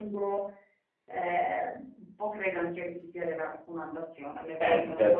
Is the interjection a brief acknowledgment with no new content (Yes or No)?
No